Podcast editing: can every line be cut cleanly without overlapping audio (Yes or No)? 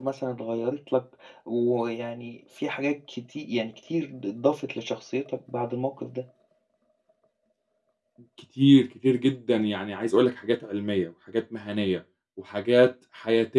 Yes